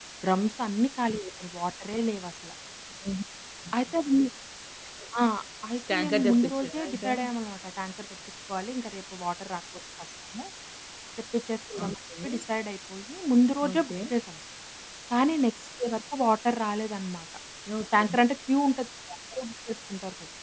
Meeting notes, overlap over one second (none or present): present